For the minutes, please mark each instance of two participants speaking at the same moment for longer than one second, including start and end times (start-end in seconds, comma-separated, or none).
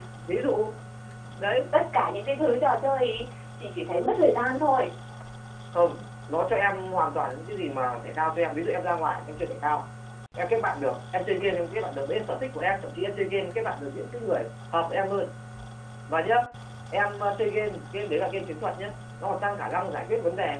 none